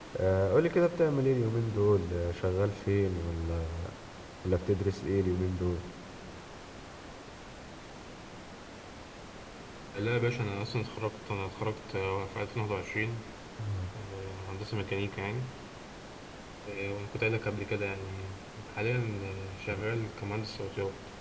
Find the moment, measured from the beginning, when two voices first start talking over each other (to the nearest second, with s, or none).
none